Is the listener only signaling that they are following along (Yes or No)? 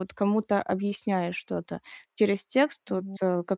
Yes